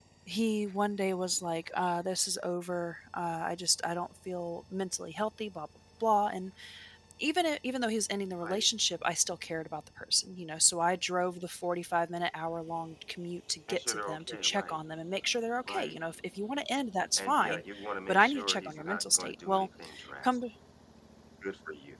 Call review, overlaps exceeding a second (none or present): present